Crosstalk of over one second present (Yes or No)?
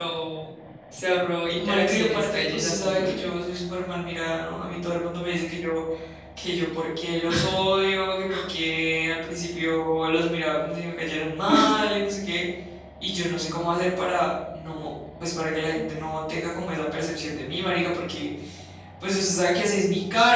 Yes